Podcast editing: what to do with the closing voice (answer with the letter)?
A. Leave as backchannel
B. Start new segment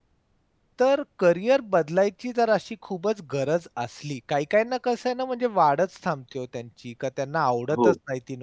A